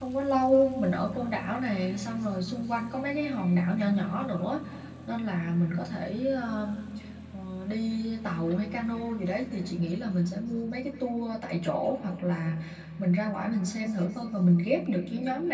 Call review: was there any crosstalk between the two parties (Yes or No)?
No